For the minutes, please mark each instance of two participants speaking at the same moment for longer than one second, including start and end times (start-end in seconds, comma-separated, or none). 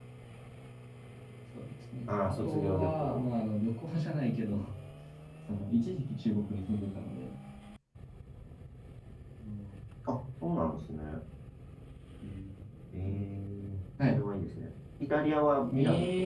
2.1-3.4